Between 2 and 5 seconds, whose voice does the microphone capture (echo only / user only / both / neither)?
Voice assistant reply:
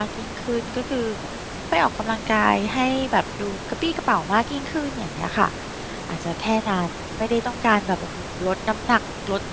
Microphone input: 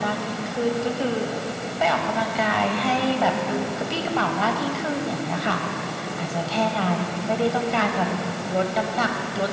echo only